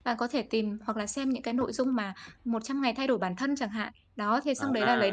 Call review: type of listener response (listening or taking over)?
listening